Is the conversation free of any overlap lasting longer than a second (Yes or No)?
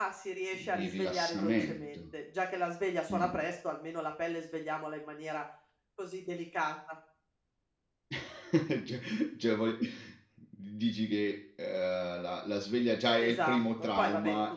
No